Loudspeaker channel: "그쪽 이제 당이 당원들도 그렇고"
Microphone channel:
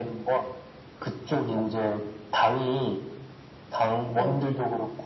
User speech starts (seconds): 4.1 s

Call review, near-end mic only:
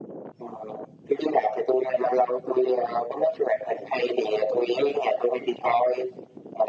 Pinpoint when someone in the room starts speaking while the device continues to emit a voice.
none

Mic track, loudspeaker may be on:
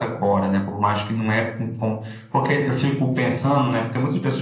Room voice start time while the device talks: none

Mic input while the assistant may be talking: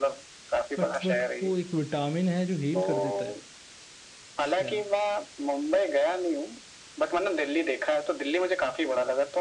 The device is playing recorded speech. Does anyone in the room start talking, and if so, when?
0.8 s

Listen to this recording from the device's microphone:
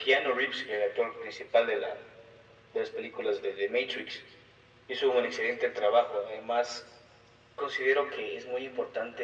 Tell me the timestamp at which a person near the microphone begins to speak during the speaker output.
none

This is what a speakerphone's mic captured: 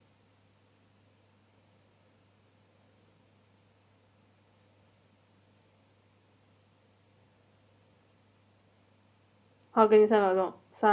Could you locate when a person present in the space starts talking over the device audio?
9.7 s

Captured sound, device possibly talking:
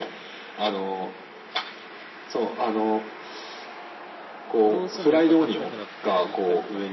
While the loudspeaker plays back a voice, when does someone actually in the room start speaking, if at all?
4.6 s

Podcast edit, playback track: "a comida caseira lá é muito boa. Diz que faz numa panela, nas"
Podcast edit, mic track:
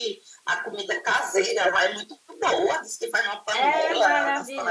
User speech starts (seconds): 3.5 s

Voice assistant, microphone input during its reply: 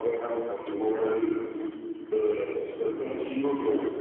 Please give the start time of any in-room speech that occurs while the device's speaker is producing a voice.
none

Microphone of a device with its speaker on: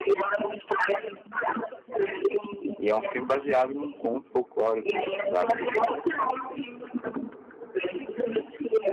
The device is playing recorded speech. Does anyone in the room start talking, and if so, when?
2.8 s

